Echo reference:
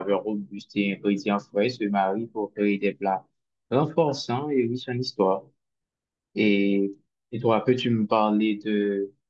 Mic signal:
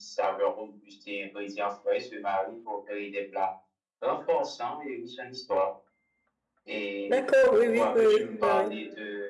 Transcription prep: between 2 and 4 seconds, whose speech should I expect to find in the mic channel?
echo only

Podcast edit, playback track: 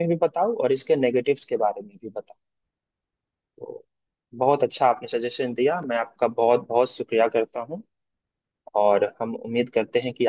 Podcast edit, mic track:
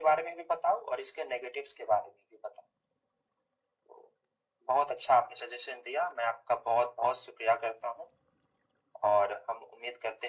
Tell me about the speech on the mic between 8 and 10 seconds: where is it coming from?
echo only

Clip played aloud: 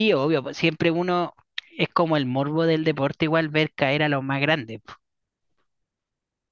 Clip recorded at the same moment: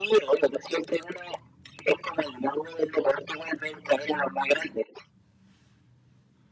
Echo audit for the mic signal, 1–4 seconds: echo only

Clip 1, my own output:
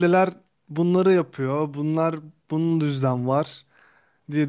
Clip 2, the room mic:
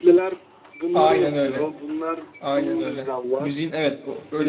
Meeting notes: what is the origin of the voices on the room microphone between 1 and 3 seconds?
both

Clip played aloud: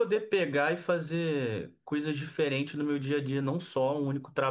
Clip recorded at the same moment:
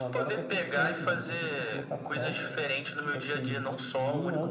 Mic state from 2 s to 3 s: both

